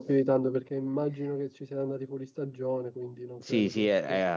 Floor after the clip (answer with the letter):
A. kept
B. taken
B